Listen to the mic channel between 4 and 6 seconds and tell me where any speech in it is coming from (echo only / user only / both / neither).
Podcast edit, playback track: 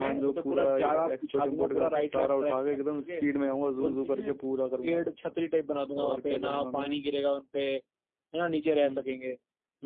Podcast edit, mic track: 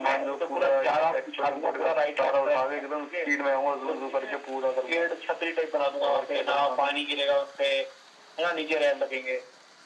echo only